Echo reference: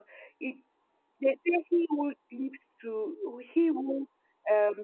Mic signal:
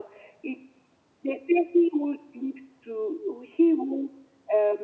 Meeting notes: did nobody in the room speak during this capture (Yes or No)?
Yes